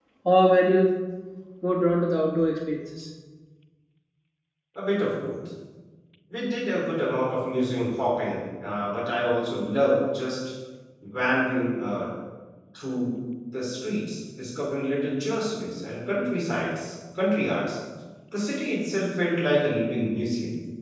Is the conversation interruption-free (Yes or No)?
Yes